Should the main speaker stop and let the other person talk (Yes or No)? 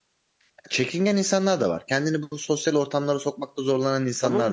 Yes